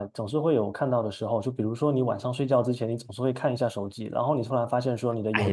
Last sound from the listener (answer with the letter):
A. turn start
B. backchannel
A